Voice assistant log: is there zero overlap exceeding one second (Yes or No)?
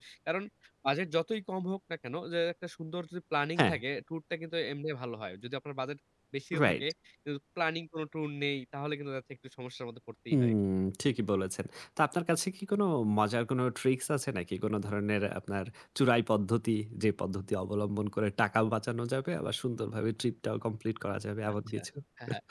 Yes